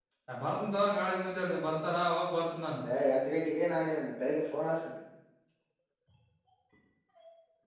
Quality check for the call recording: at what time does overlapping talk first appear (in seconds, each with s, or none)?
none